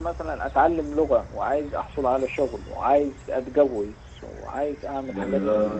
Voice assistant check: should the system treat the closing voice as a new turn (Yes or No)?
Yes